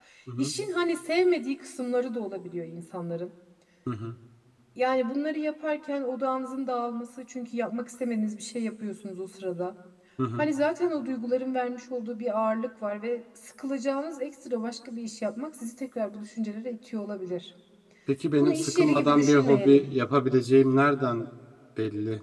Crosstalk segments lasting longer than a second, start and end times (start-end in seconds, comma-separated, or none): 18.4-19.8